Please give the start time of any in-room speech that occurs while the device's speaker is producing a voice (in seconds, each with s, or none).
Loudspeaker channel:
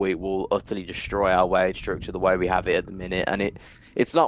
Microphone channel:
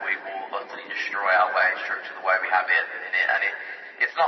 none